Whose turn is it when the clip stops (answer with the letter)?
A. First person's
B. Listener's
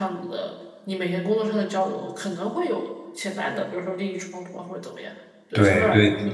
B